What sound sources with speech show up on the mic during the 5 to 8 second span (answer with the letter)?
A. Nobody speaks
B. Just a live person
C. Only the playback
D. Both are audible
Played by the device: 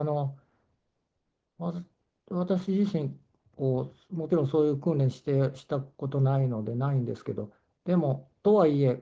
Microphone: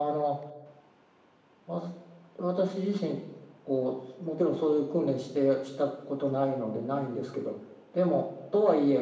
C